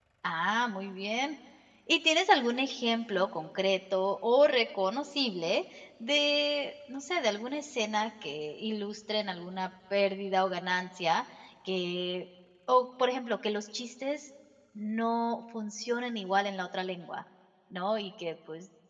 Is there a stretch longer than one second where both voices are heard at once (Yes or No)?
No